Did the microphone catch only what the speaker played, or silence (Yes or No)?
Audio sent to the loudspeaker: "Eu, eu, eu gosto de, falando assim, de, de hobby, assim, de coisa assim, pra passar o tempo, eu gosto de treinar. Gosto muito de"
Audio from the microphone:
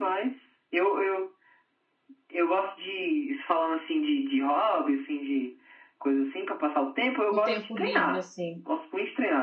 No